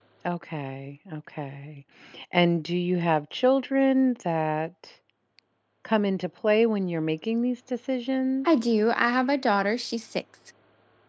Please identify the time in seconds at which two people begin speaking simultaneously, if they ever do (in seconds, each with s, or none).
none